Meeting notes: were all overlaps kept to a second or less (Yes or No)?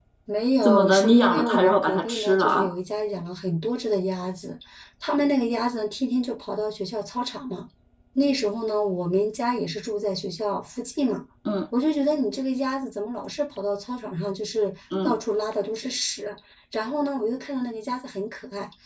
No